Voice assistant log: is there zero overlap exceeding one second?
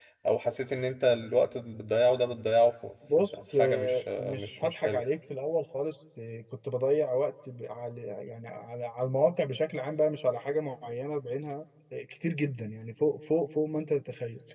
No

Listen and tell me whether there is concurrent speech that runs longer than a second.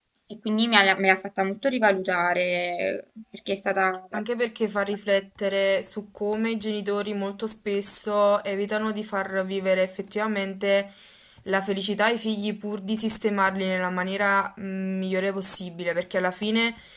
No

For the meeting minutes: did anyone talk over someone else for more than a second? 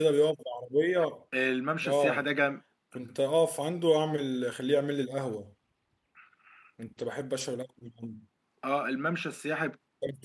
No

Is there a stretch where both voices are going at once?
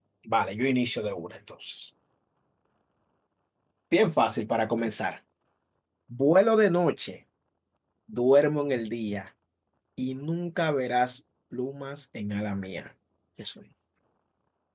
No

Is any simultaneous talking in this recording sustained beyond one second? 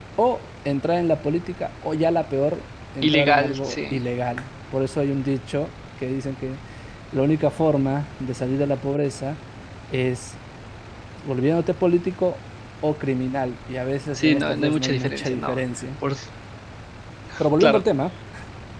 Yes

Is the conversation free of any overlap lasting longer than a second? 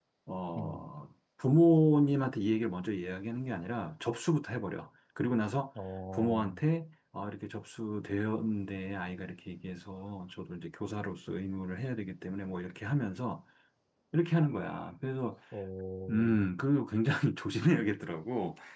Yes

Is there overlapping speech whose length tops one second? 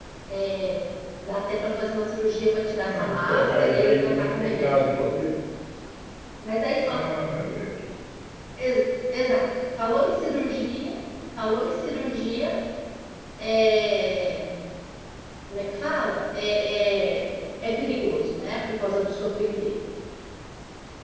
Yes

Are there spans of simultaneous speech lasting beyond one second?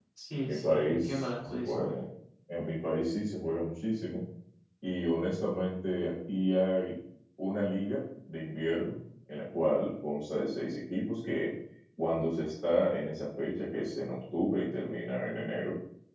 Yes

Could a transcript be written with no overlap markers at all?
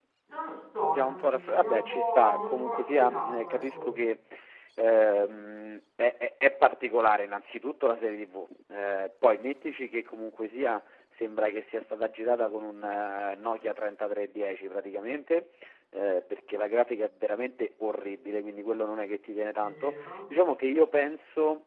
No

